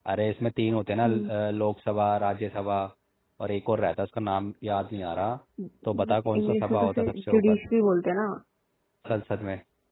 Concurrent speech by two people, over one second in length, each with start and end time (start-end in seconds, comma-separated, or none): 6.4-7.6